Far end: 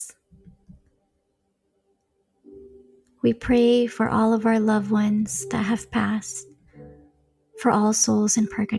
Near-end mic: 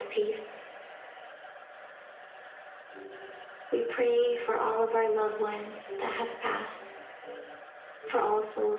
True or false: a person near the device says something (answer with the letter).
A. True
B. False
B